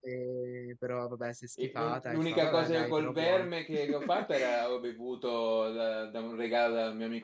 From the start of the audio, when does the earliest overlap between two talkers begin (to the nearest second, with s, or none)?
2 s